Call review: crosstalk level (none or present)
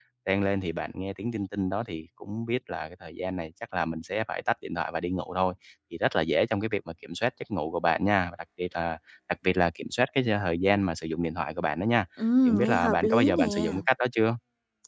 present